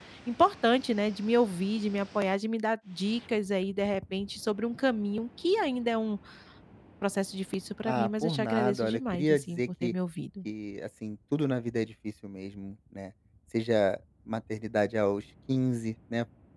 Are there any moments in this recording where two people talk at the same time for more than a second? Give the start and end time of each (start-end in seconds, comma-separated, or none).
7.8-9.9